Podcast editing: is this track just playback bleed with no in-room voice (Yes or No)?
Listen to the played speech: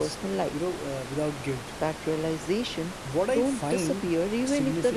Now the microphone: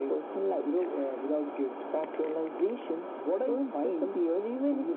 Yes